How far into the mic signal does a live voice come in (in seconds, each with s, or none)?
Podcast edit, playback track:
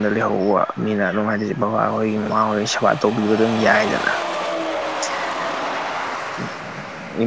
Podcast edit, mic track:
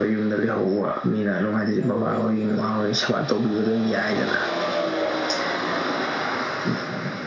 1.5 s